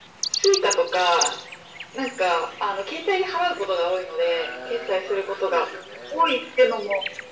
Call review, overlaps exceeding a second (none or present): present